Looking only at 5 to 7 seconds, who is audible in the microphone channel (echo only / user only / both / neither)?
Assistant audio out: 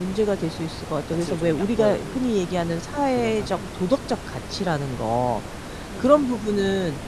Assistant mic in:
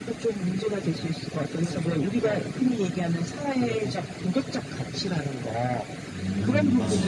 both